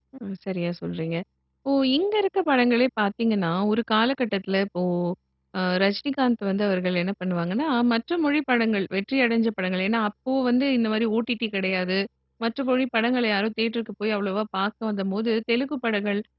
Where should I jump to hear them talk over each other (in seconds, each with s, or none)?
none